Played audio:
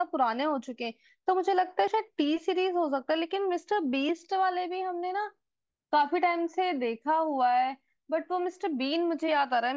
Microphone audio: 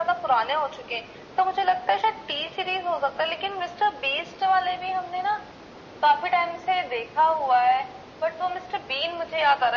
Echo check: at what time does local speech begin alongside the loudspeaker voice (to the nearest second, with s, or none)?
none